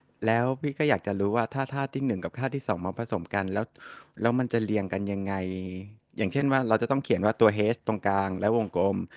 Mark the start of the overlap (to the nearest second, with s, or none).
none